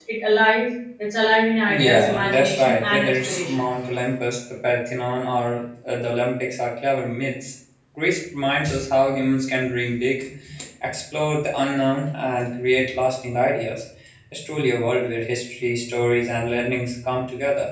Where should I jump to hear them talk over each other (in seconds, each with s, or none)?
1.7 s